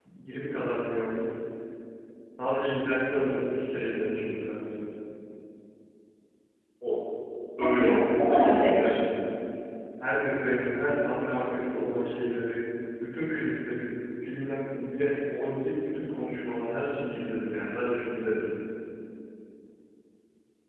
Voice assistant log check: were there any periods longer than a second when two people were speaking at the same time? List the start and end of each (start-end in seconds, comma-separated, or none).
7.6-9.1